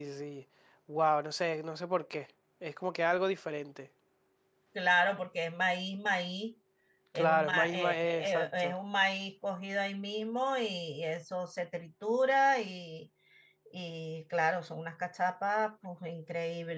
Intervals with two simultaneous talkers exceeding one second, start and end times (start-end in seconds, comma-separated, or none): 7.2-8.7